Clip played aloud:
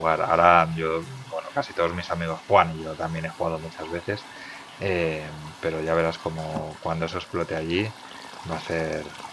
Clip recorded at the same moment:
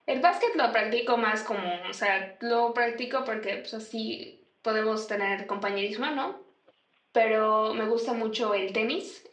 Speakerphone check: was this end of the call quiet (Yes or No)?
No